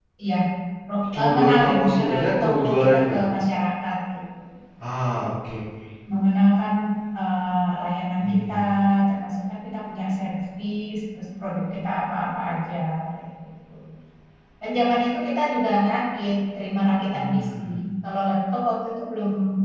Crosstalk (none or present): present